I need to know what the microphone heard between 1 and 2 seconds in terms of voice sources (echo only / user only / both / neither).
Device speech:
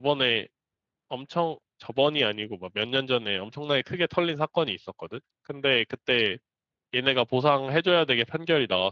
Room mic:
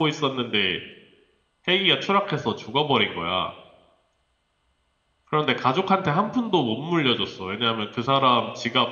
user only